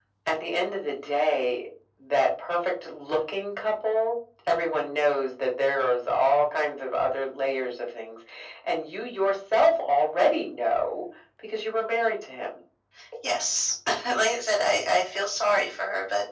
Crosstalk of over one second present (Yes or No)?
No